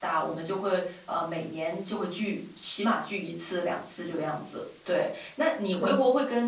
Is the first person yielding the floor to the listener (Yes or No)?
No